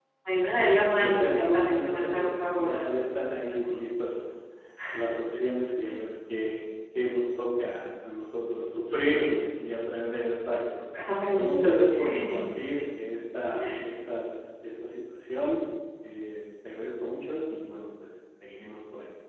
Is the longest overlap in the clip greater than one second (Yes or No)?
Yes